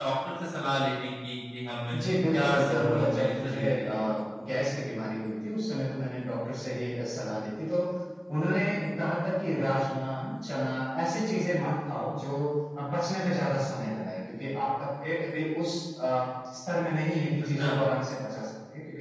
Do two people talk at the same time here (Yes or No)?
Yes